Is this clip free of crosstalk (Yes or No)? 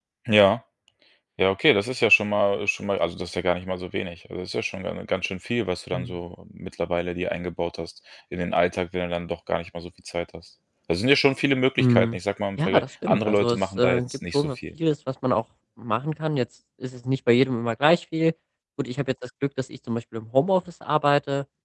No